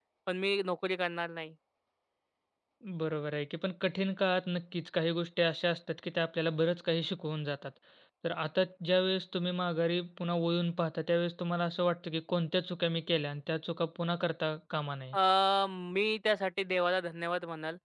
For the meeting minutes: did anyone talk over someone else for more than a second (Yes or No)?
No